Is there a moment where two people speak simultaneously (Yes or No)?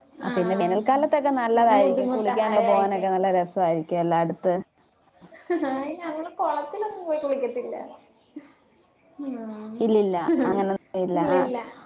Yes